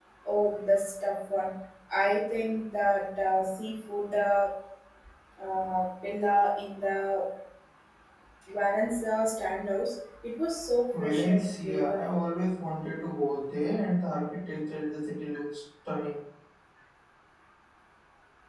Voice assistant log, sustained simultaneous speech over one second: present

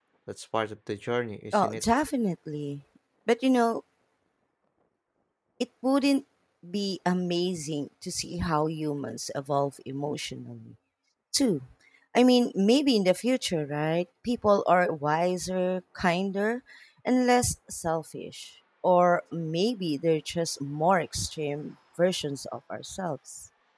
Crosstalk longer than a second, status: none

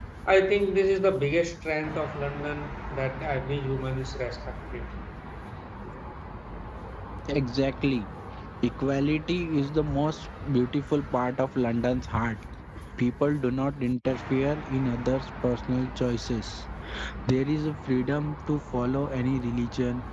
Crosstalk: none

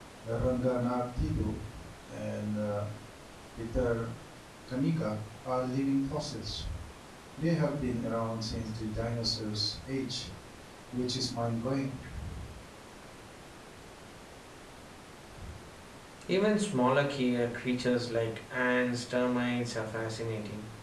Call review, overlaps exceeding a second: none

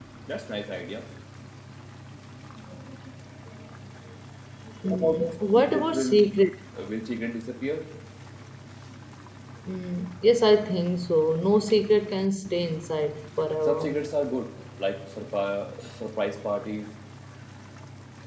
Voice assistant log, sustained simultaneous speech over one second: present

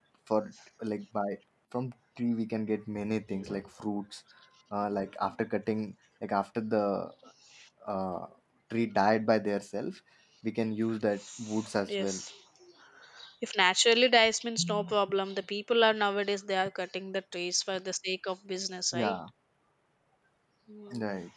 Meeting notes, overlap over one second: none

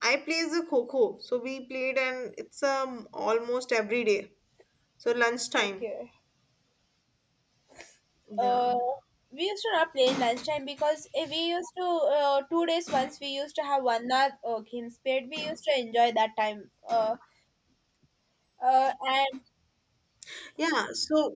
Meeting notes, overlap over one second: none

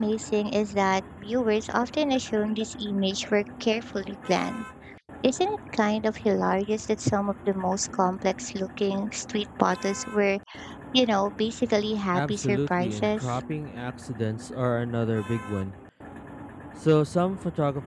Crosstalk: present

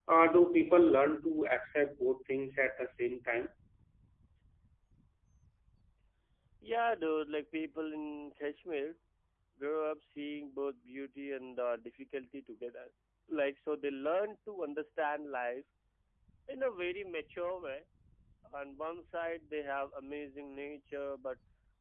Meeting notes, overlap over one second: none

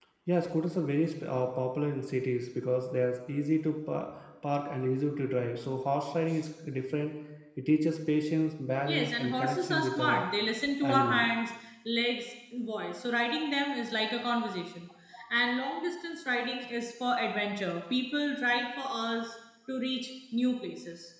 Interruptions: present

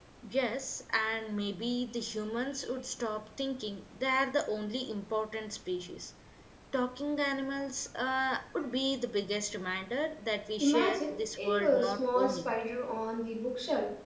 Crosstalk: present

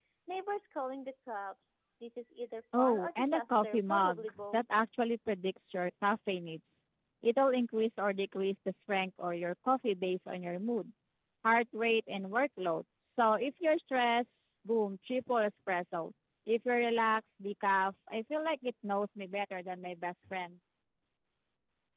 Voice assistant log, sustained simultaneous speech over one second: present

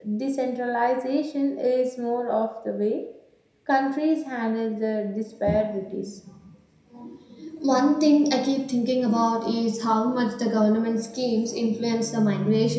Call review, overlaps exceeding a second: none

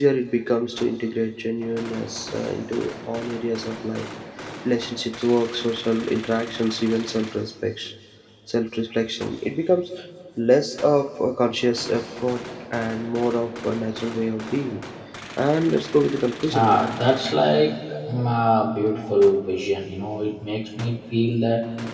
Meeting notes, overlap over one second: none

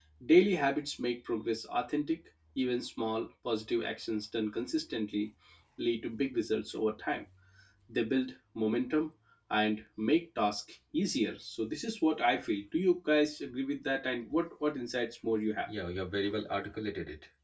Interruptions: none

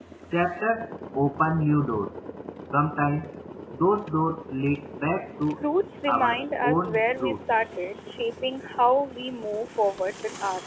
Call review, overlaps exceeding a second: present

